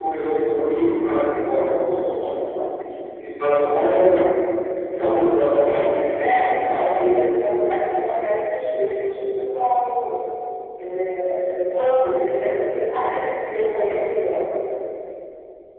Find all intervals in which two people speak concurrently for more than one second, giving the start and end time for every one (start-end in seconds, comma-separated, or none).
5.5-6.8